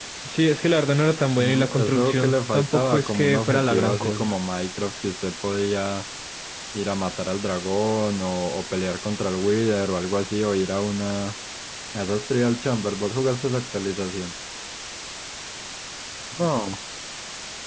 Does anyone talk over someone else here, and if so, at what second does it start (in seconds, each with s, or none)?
1.4 s